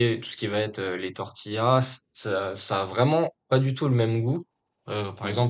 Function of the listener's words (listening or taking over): listening